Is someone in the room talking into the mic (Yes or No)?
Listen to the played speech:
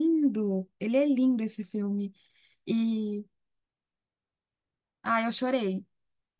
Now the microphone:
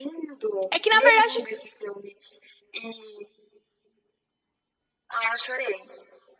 Yes